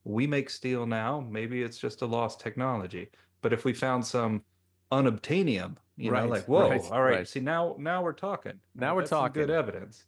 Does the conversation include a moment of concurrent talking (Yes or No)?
Yes